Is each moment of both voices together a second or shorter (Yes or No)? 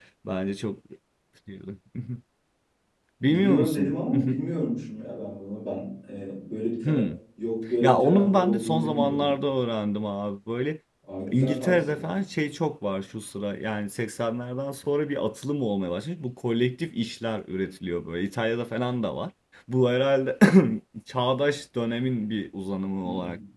No